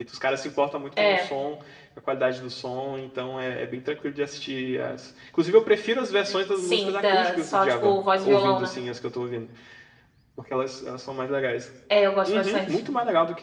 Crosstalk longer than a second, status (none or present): present